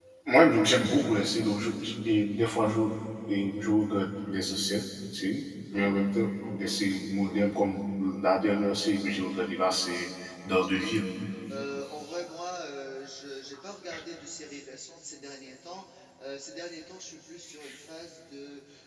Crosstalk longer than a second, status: none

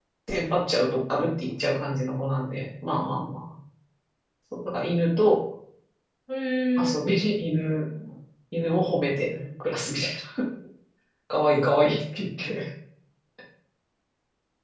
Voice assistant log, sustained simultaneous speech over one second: none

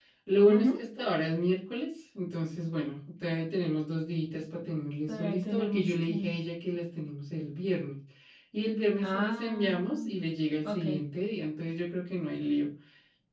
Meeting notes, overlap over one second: present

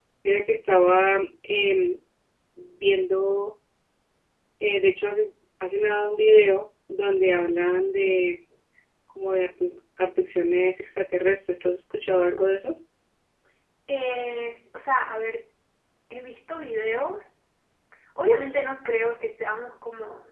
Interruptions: none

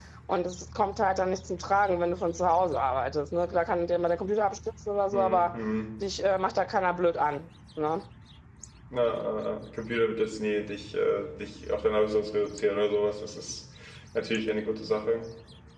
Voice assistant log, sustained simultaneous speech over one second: none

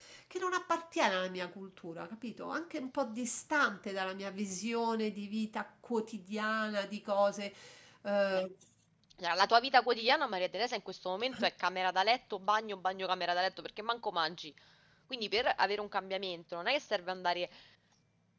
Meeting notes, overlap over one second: none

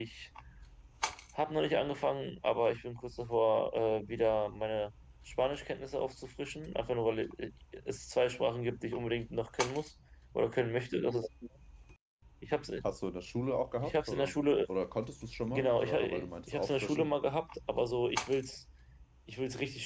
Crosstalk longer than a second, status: present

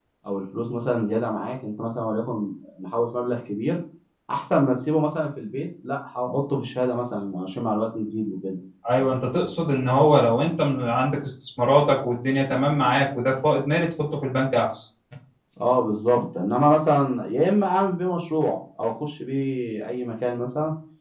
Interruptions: none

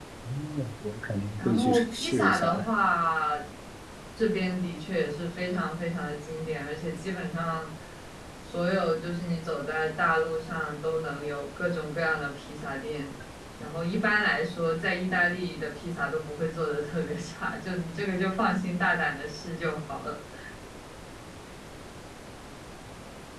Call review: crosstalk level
present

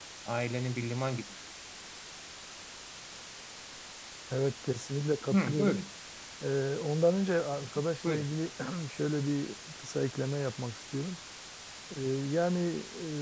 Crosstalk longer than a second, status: none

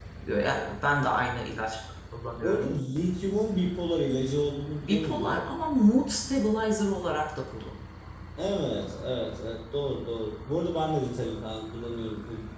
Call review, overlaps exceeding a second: none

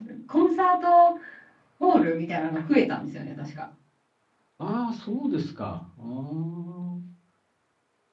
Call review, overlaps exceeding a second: none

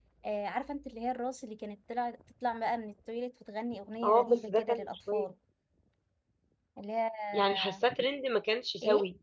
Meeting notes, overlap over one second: present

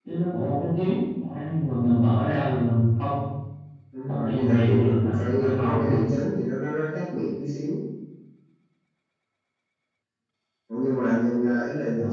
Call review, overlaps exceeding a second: present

